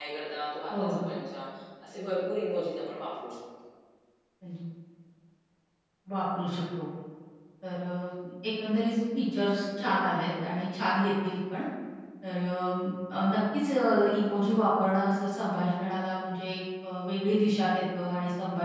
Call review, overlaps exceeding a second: none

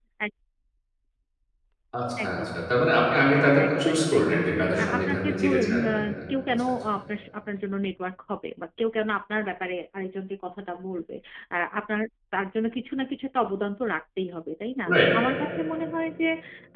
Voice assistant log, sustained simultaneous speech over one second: present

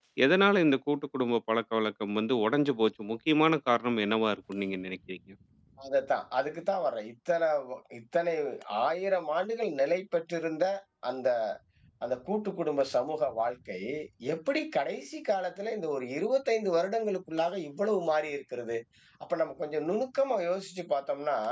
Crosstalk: none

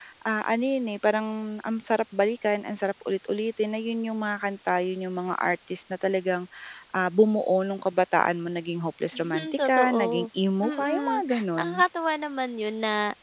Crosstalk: present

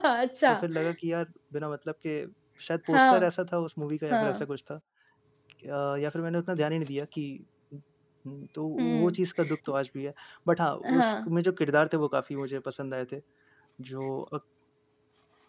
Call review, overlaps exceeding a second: none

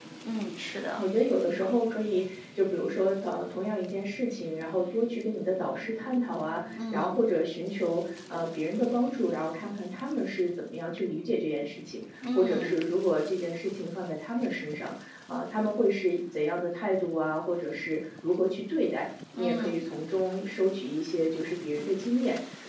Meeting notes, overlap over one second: none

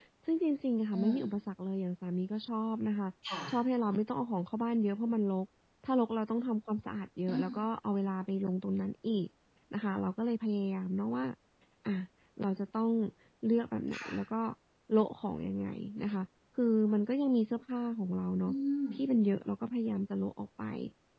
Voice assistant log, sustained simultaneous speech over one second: none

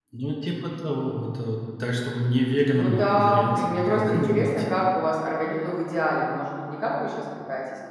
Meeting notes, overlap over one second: present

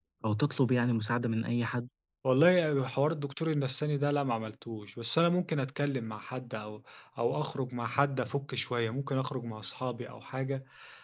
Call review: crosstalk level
none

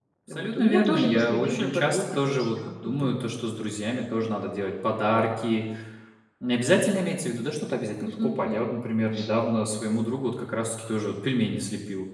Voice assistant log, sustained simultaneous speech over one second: present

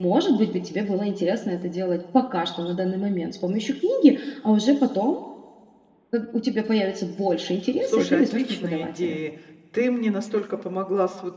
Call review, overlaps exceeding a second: present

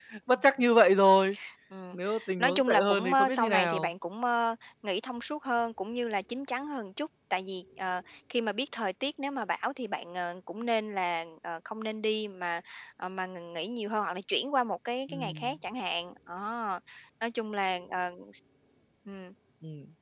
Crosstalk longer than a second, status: present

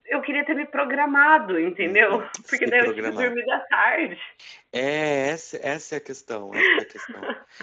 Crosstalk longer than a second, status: present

